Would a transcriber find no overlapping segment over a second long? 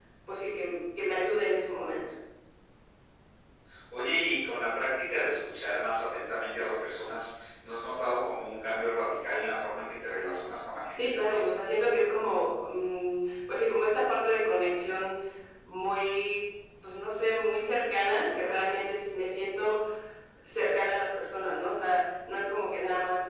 Yes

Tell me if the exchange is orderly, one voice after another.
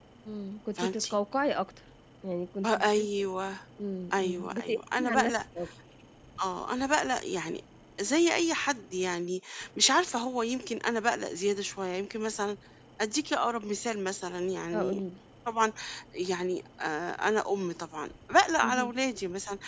No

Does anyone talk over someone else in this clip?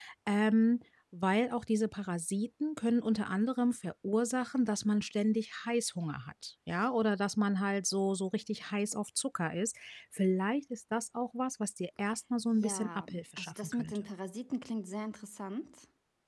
Yes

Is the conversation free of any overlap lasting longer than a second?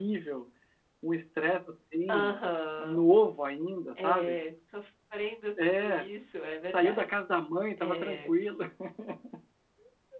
Yes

